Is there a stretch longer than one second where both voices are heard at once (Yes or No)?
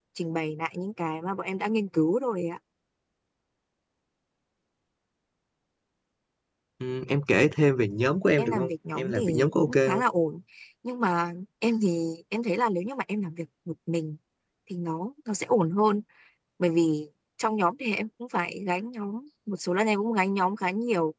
Yes